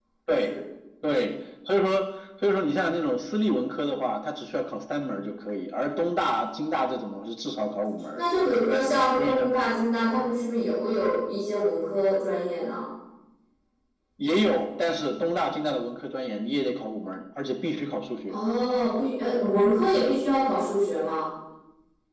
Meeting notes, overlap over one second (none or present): none